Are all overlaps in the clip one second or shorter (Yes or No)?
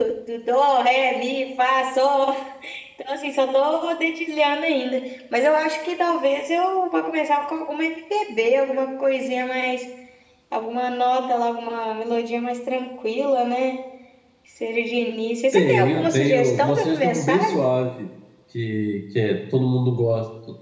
No